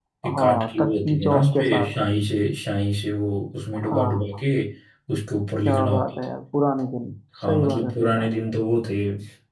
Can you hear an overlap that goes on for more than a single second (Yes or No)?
Yes